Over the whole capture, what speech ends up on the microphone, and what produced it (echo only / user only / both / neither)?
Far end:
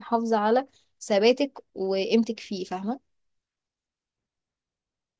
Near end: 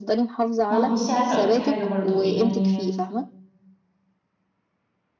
both